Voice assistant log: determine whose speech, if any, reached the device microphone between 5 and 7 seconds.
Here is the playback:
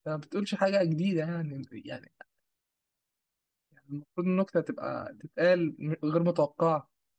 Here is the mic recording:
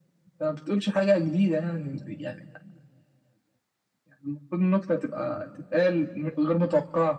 echo only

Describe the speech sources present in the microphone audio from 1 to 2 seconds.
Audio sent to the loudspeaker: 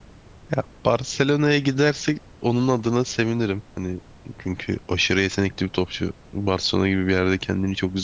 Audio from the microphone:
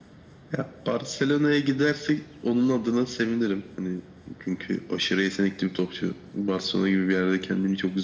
echo only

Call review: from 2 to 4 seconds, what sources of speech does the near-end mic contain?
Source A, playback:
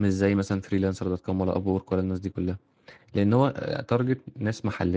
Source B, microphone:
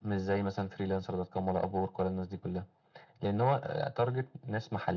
echo only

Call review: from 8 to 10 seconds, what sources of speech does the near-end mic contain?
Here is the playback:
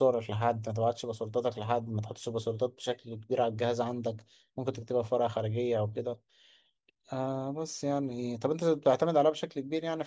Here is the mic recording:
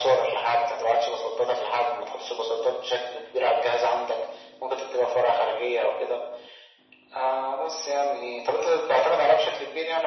echo only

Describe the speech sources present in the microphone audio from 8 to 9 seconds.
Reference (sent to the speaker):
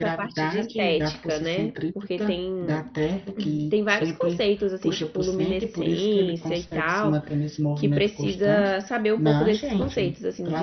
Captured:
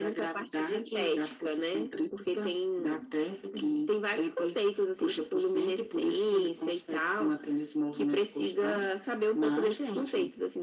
echo only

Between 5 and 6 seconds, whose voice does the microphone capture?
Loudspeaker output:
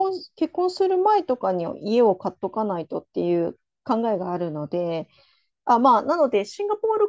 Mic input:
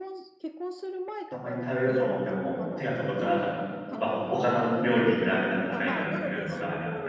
both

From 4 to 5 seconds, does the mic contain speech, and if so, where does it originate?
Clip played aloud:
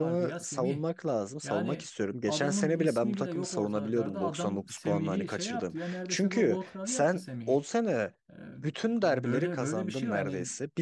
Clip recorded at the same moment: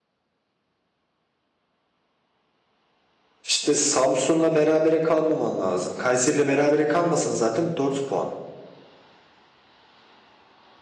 user only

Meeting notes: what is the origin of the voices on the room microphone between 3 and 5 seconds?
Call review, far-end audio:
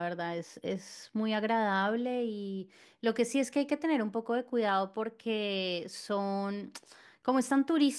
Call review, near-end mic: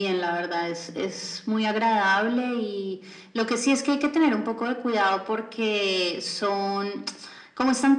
echo only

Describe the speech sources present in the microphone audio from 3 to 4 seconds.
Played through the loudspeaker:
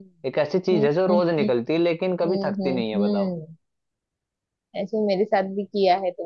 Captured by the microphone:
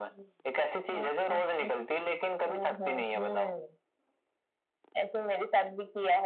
echo only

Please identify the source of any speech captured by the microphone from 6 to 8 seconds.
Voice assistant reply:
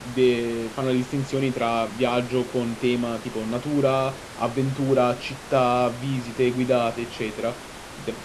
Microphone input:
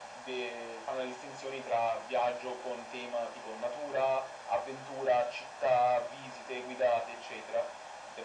echo only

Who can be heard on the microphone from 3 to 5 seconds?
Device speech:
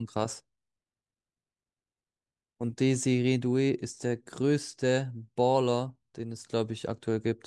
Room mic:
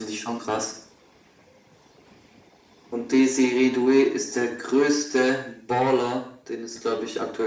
echo only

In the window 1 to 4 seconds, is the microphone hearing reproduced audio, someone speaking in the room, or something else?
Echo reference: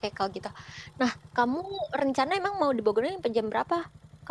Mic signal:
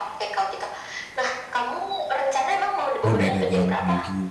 both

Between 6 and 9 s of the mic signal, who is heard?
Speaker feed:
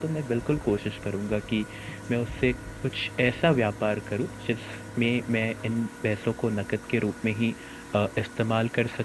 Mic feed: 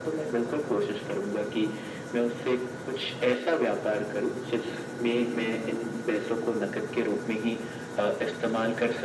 echo only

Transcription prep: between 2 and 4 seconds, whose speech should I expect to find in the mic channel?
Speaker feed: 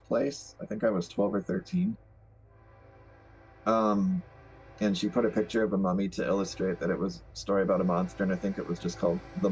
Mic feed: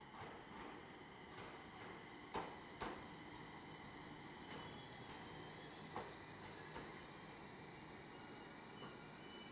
neither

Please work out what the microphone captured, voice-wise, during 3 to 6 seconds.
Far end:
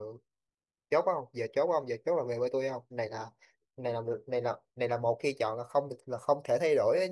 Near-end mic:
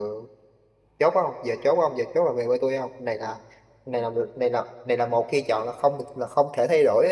echo only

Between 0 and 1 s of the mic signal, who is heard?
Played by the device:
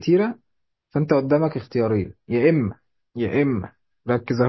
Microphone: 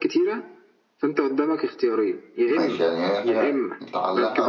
echo only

